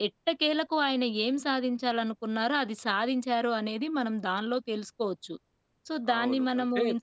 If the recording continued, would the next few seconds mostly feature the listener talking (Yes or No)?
Yes